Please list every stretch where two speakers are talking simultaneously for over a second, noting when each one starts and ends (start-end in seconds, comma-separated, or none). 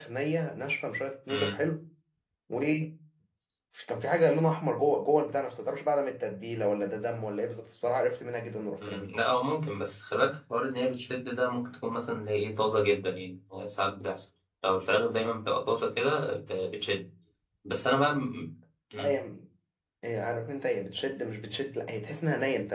none